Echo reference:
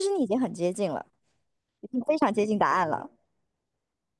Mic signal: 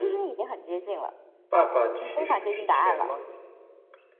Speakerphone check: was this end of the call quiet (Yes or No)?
No